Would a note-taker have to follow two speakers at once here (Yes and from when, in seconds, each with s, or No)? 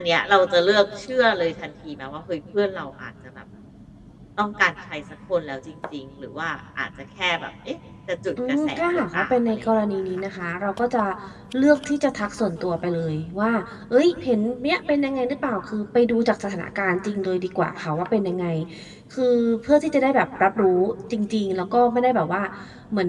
Yes, from 8.4 s